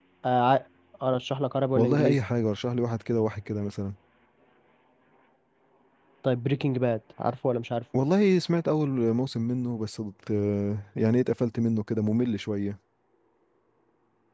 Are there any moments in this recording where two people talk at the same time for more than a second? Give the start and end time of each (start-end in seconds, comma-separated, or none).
none